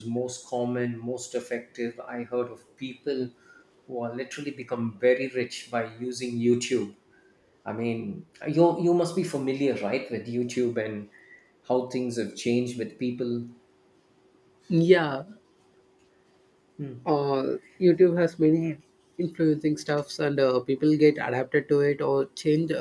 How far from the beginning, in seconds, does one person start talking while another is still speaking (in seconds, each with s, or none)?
none